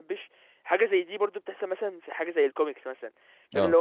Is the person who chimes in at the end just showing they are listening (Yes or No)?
Yes